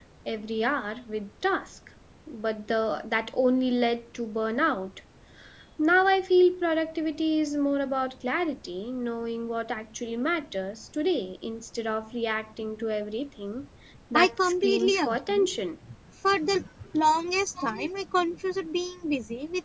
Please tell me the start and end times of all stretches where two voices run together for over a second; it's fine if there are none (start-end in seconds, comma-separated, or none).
14.2-15.5